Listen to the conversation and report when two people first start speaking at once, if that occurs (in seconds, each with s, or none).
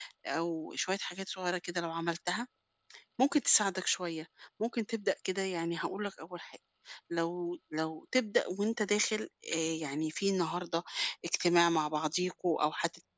none